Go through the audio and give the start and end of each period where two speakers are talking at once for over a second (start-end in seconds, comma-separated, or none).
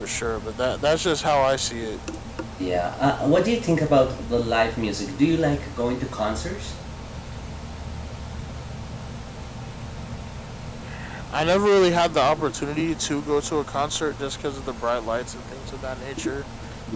none